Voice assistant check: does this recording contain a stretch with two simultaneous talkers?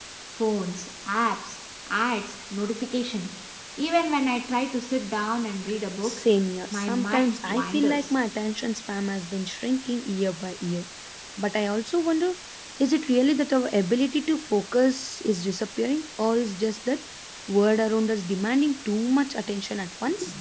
Yes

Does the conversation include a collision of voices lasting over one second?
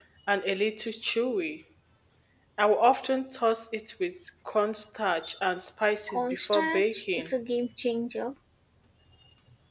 Yes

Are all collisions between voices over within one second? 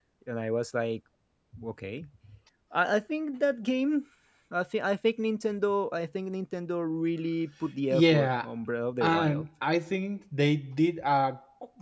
Yes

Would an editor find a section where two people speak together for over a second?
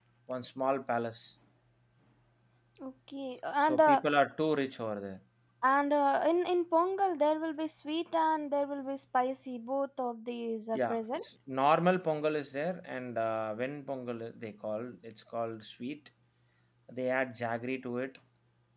No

